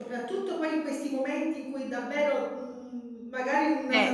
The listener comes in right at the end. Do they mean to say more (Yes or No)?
No